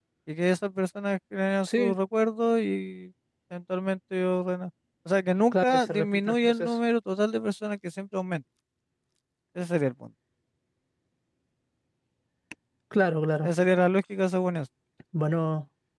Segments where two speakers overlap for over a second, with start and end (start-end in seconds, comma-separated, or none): 5.5-6.8